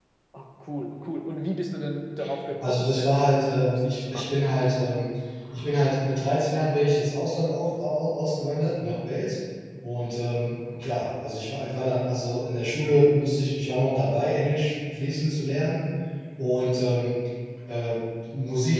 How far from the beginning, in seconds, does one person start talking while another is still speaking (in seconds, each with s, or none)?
2.6 s